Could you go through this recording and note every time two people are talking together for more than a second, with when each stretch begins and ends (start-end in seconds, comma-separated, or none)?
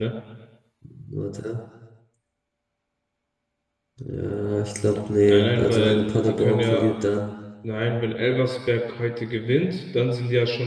5.3-6.9